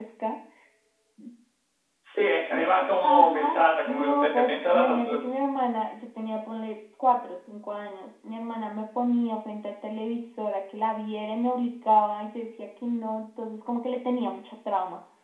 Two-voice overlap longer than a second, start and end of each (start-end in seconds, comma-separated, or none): 3.0-5.2